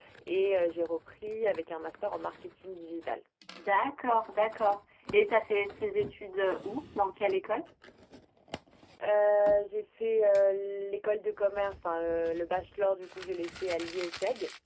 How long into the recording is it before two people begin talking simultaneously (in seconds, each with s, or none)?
none